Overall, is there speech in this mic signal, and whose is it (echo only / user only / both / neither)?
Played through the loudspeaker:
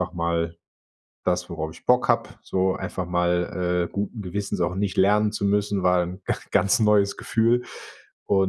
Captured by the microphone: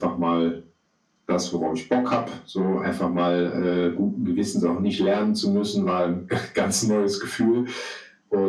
echo only